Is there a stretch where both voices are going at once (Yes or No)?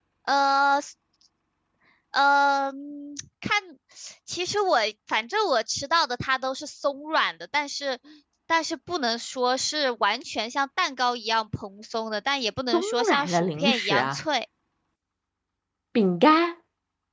Yes